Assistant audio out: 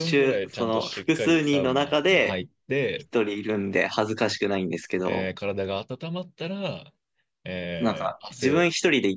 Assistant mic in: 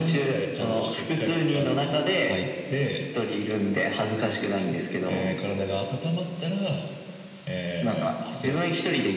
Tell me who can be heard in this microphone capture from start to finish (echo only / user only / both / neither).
echo only